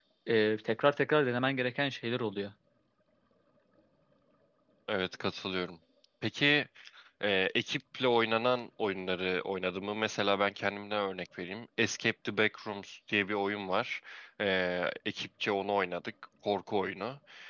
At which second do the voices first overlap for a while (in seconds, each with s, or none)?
none